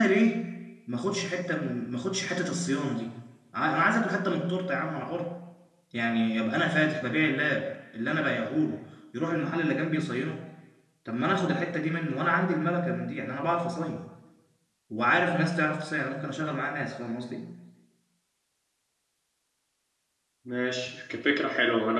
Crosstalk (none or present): none